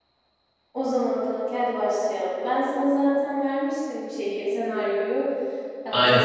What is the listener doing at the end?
listening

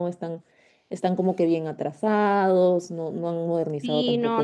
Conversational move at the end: taking over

